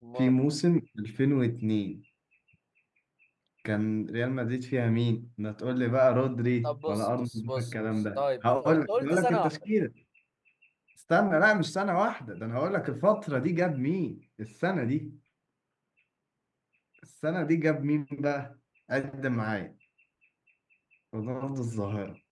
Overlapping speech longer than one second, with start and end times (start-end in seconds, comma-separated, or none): 6.6-9.6